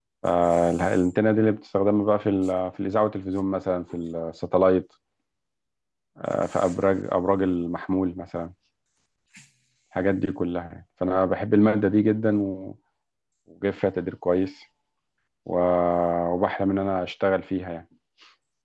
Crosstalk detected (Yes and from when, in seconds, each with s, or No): No